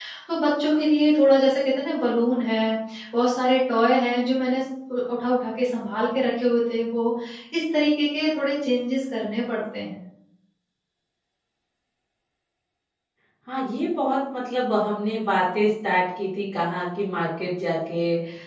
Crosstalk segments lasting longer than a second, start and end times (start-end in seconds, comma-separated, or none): none